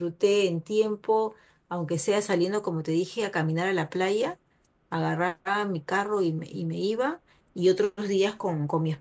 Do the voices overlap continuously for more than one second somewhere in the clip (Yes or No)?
No